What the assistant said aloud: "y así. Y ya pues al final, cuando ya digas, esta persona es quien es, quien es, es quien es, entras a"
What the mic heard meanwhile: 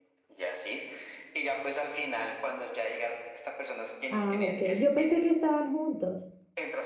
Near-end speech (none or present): present